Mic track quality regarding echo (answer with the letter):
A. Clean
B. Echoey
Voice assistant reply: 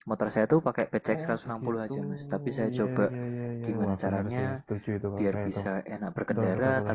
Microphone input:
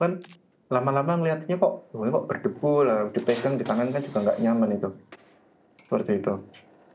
A